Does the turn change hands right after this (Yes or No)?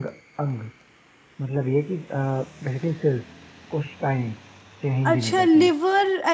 Yes